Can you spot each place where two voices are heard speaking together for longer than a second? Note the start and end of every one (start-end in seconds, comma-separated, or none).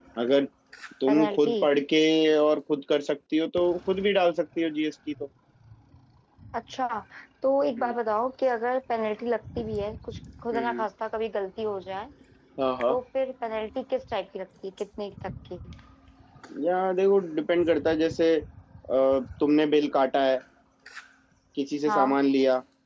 none